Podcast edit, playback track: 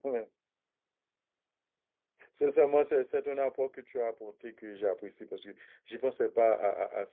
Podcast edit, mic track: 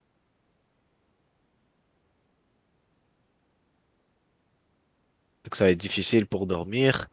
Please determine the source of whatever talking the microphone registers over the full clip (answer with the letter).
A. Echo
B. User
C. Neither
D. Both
B